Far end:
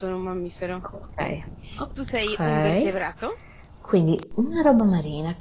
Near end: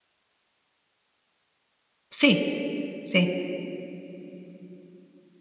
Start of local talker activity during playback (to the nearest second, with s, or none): 2 s